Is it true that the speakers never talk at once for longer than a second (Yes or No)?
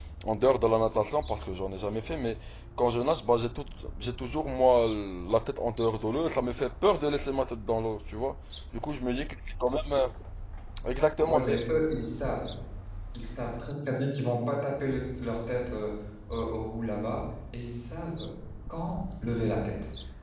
Yes